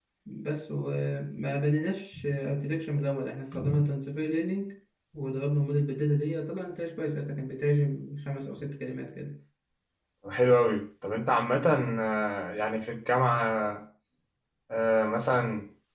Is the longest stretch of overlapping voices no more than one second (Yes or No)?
Yes